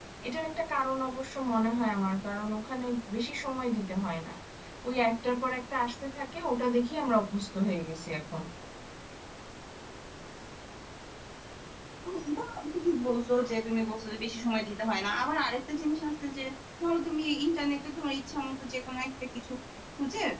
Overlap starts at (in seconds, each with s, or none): none